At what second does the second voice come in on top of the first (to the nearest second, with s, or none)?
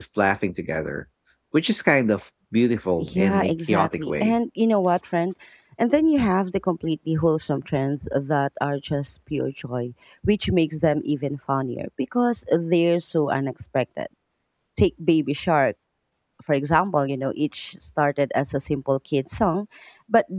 3 s